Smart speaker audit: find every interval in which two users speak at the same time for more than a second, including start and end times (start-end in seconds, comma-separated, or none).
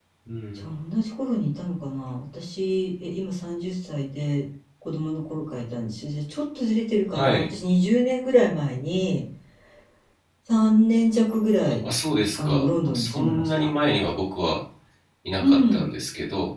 12.4-13.7